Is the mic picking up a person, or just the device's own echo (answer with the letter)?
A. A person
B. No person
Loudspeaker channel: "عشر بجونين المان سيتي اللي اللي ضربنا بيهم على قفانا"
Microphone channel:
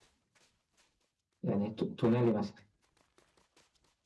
A